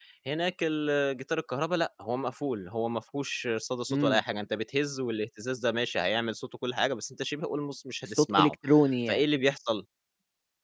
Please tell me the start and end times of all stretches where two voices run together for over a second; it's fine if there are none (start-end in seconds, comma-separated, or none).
none